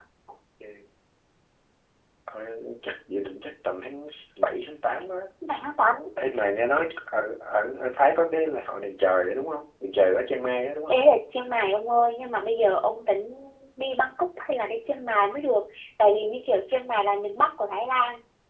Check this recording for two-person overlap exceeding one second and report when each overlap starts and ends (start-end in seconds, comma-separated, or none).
none